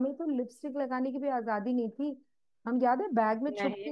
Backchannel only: Yes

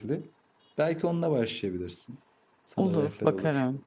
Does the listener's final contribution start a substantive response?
Yes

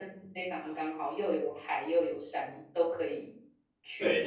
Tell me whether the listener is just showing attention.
No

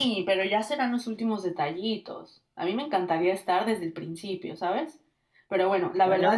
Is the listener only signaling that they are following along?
Yes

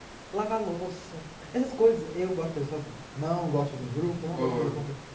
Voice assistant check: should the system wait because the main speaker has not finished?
Yes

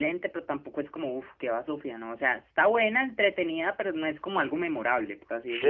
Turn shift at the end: Yes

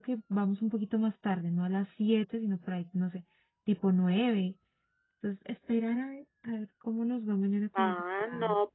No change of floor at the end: No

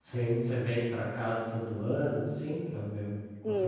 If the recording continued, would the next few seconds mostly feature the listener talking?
Yes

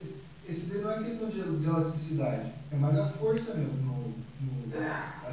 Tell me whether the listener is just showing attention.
No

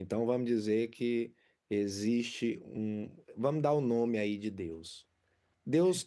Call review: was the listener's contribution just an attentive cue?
Yes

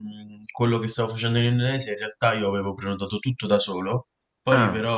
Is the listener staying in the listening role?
Yes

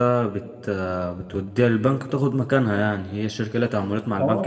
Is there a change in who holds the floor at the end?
Yes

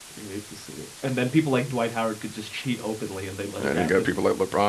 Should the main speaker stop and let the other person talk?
Yes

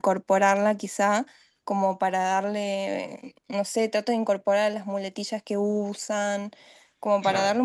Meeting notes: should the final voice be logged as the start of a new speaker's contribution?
No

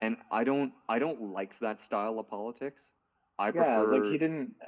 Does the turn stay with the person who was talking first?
No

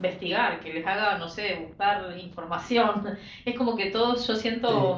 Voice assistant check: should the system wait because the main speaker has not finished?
Yes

